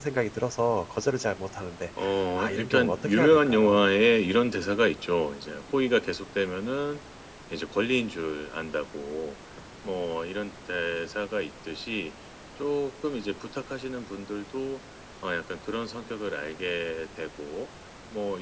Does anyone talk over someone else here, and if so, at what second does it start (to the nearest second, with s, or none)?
2 s